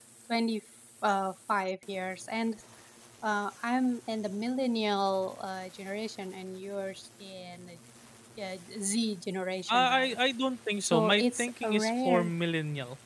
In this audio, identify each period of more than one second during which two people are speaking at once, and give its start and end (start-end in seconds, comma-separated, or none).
10.8-12.3